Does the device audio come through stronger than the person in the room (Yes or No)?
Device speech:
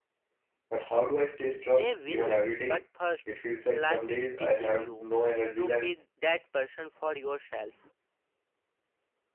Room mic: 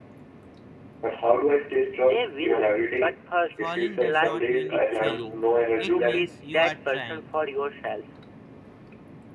Yes